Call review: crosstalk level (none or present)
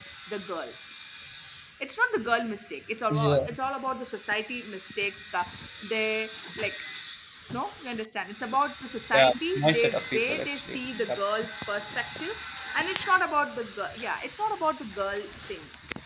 present